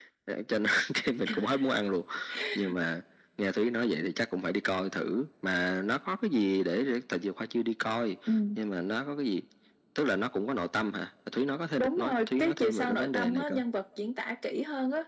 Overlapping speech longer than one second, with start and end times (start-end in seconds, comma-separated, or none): 11.8-13.6